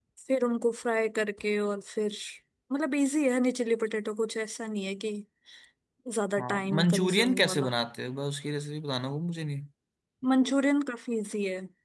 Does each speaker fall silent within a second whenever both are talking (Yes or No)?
No